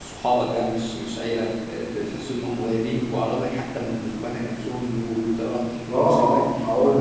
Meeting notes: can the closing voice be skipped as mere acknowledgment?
No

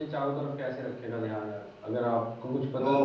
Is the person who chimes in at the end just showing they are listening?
No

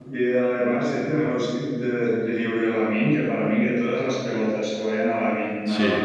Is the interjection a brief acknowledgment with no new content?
Yes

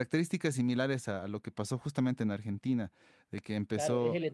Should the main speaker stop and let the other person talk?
Yes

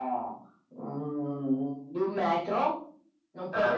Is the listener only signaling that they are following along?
Yes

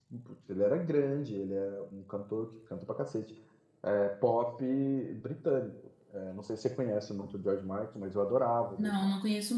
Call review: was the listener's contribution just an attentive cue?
No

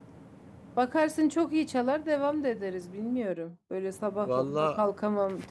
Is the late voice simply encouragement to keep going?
Yes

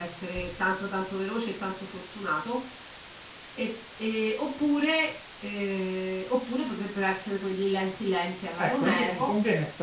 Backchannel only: No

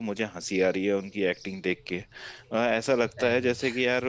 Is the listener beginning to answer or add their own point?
No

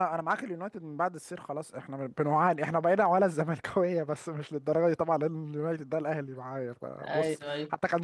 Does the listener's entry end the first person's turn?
No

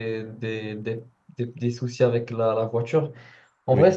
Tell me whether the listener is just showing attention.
Yes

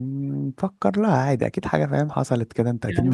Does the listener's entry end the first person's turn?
Yes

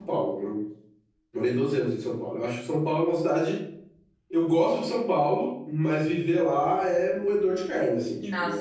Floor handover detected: Yes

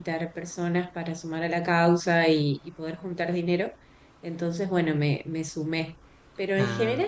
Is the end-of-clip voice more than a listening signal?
No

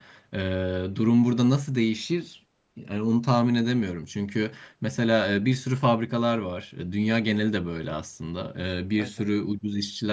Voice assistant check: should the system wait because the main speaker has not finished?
Yes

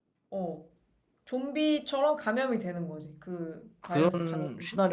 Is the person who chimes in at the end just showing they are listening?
No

